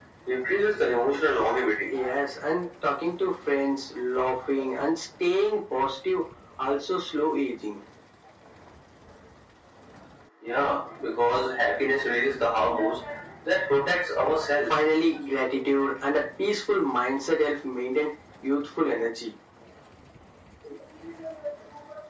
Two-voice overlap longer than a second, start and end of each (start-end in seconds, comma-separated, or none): none